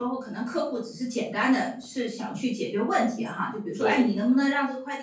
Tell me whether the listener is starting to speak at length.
No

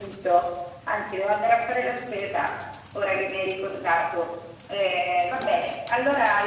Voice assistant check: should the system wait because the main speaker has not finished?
Yes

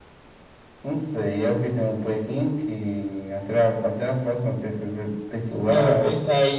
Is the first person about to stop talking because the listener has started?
Yes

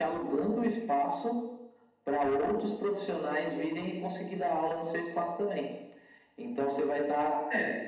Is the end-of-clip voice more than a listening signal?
No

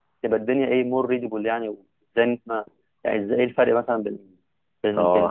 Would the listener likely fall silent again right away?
No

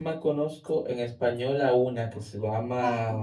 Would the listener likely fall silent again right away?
Yes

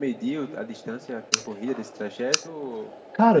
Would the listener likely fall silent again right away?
No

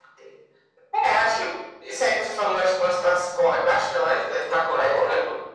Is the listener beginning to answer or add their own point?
No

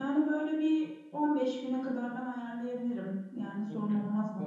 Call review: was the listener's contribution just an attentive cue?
No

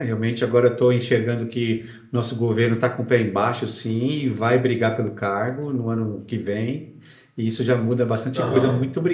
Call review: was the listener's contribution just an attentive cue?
Yes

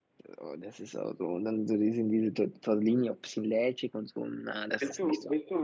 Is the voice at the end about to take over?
Yes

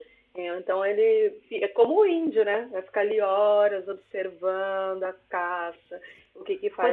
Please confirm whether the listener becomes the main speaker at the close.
No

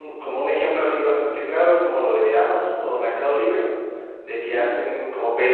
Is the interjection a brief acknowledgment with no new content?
Yes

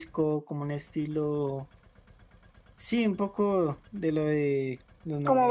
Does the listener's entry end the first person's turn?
No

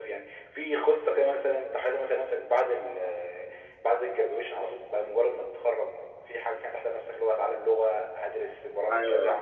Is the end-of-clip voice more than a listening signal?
Yes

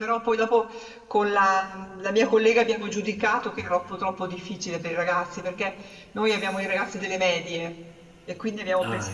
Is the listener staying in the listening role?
Yes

